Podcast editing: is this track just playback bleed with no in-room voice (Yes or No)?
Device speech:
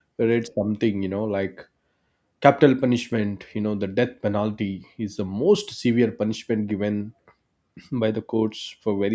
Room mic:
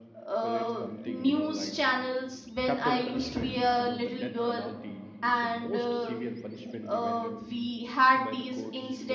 No